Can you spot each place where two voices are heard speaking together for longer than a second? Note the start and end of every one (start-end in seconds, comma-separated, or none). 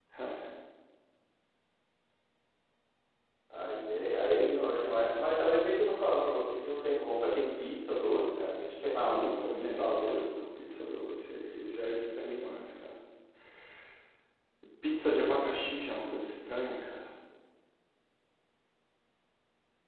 9.0-10.2